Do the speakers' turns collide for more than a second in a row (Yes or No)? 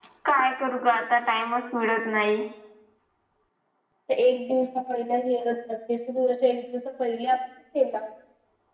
No